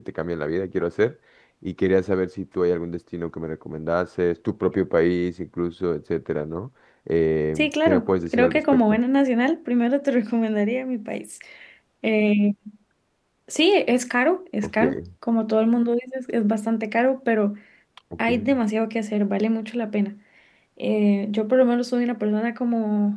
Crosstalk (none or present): present